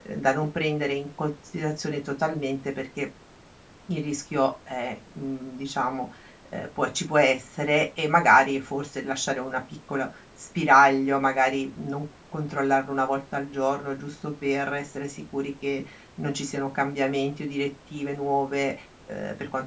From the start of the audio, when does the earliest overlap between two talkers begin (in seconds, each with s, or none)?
none